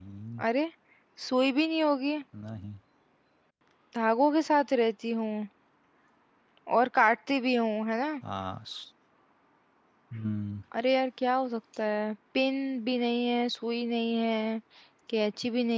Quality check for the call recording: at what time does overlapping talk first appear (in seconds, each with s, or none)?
none